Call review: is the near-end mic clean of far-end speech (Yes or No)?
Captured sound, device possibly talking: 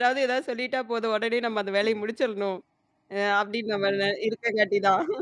Yes